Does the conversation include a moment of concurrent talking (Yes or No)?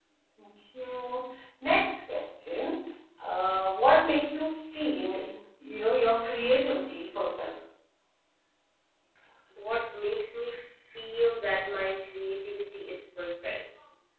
No